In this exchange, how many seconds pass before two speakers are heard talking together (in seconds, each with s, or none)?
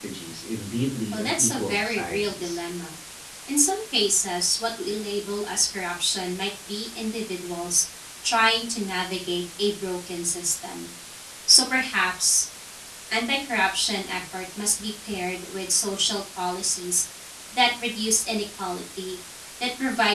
1.1 s